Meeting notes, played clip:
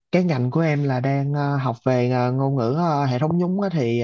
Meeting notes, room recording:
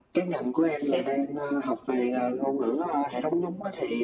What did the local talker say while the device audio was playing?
xét

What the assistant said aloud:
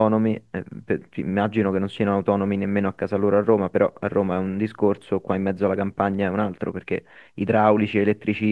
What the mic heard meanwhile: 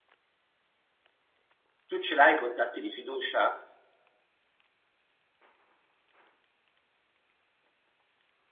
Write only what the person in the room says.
Tu ce l'hai i contatti di fiducia?

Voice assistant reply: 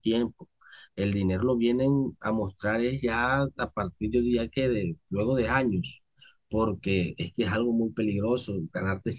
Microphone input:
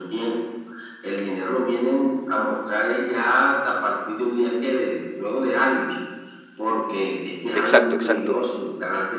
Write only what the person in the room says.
exacto, exacto.

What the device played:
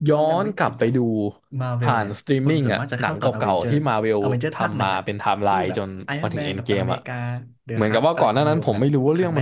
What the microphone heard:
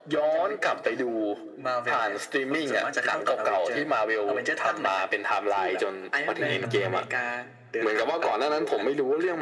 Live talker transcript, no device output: อ่าอ่า

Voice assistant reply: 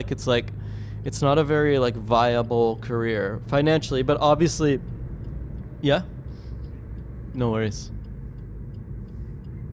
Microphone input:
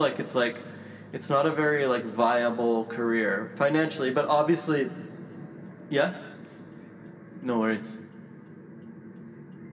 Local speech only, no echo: none

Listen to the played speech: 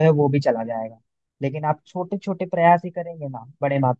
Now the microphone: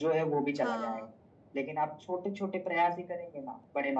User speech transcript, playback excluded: हाँ

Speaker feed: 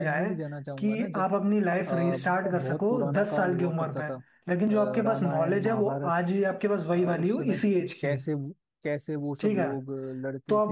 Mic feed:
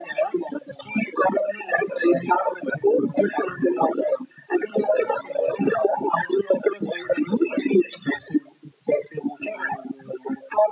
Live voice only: none

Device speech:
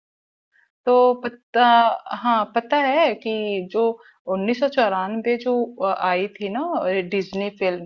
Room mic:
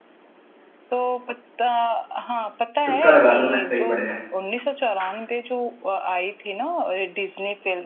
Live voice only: तुक्का लगा दो मैं सही पड़ जाए

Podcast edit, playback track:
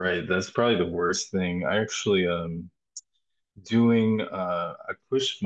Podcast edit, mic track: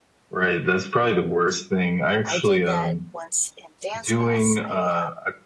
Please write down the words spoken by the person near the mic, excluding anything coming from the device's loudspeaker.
I did that once in dance class. I um,

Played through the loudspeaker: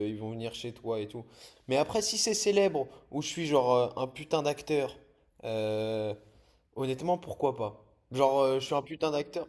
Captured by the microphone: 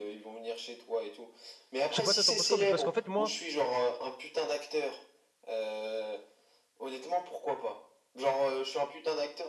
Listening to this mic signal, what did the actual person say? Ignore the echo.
Je sais pas, toi, t'en penses quoi, mais parce qu'en fait, moi,

